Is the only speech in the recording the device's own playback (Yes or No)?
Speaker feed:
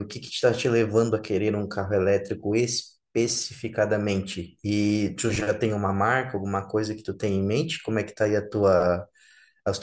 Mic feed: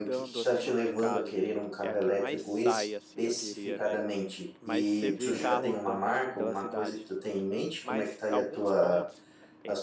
No